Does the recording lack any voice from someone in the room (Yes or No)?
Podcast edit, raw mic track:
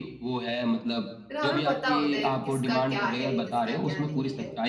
No